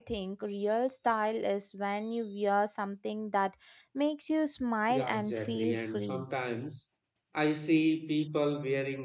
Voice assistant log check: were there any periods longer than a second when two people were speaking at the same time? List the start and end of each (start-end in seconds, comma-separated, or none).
4.9-6.2